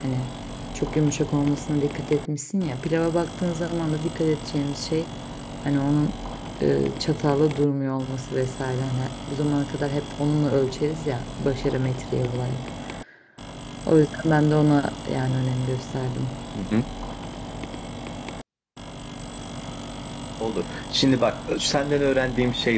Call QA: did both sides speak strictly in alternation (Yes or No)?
Yes